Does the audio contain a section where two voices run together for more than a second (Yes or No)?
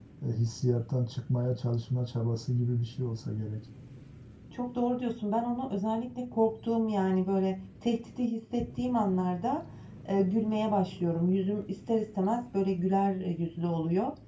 No